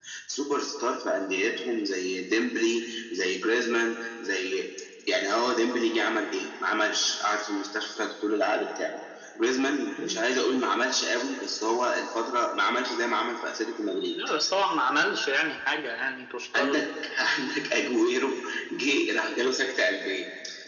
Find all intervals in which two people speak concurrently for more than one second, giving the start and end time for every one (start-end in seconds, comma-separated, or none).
none